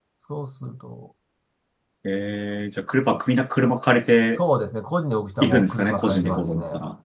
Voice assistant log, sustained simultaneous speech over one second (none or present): present